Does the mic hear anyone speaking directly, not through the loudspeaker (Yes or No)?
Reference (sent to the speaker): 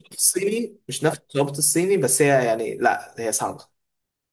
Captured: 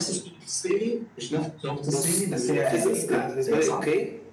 Yes